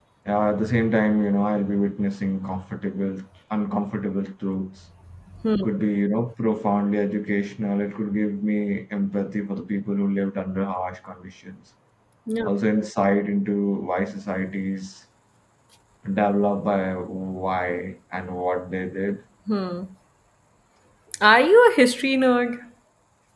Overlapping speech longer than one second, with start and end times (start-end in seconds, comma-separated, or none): none